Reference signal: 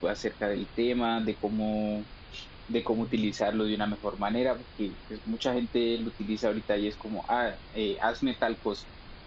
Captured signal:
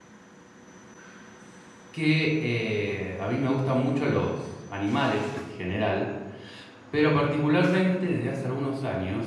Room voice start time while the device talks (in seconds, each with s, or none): 1.9 s